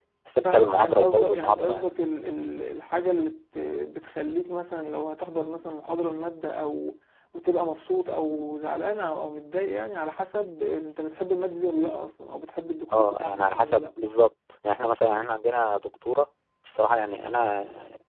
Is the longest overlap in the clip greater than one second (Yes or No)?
Yes